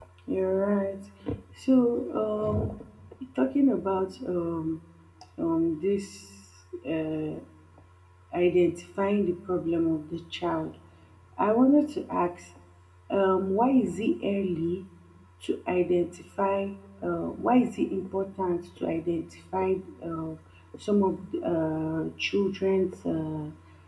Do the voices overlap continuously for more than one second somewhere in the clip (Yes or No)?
No